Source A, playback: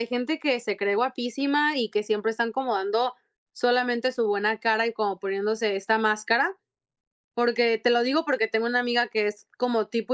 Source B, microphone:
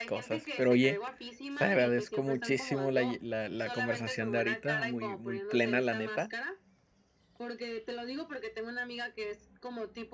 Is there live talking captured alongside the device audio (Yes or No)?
Yes